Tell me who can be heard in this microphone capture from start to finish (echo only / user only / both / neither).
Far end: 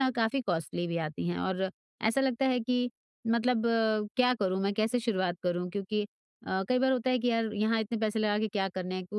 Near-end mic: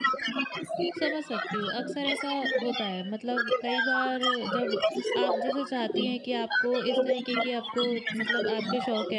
both